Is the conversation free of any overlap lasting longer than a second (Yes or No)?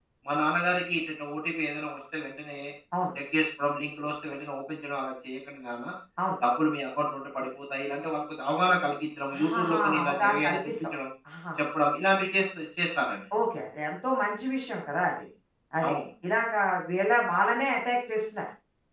No